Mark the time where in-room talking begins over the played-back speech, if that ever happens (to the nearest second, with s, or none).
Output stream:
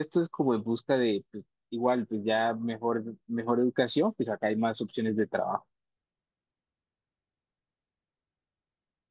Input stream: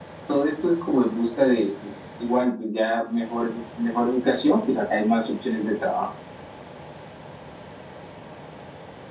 none